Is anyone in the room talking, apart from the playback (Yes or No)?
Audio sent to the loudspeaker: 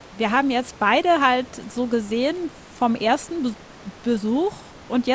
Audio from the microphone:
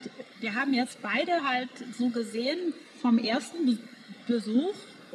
No